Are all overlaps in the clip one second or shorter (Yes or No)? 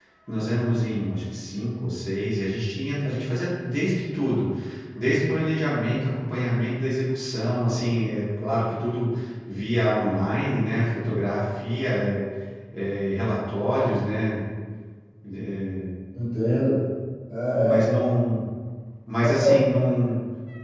Yes